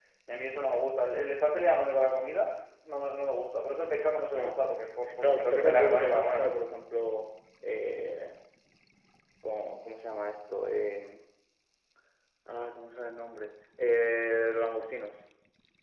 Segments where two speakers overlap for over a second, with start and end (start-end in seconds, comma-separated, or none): 5.2-6.6